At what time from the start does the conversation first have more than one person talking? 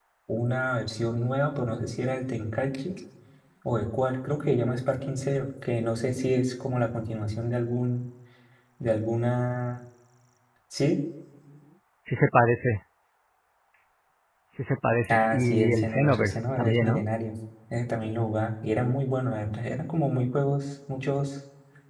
15 s

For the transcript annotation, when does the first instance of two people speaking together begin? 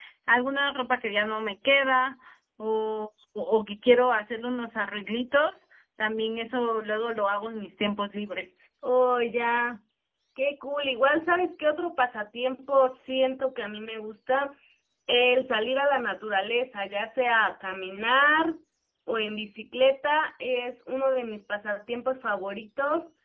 none

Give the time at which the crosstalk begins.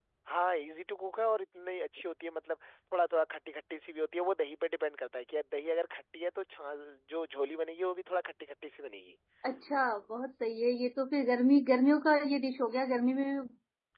none

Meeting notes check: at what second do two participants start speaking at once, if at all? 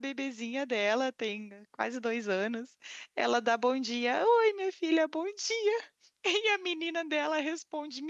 none

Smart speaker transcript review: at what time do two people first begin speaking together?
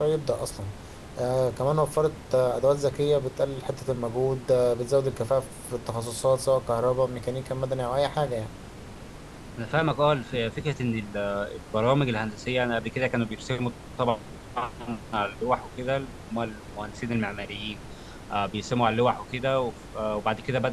none

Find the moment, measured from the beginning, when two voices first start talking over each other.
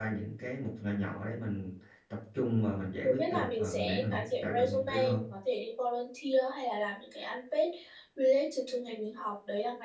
3 s

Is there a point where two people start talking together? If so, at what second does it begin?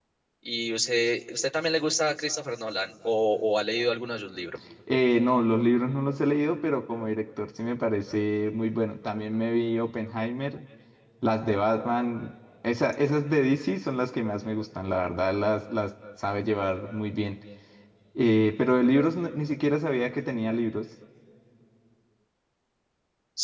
none

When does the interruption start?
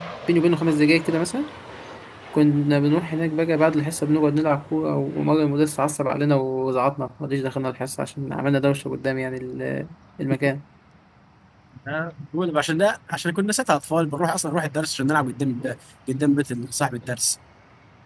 none

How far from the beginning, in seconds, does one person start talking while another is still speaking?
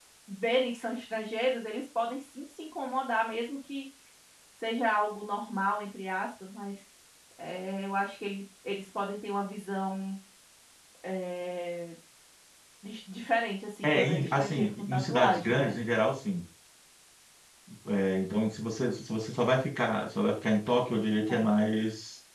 14 s

